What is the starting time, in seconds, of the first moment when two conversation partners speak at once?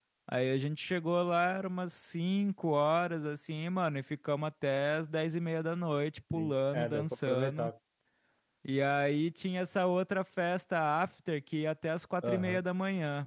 6.3 s

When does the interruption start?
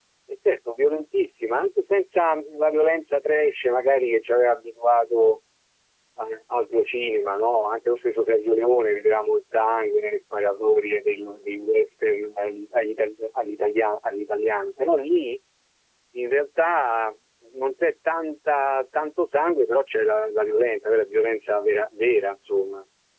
none

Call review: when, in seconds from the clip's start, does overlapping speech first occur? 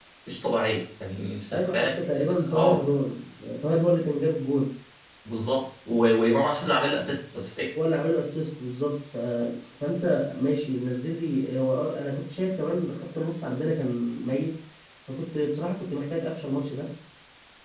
1.5 s

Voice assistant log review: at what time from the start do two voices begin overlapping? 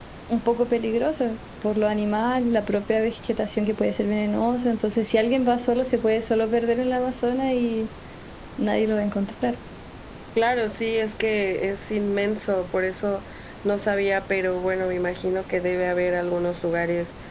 none

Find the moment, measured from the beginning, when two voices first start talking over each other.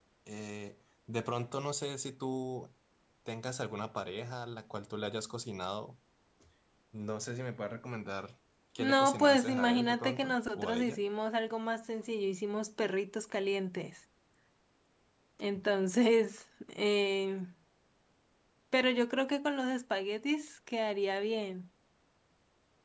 8.8 s

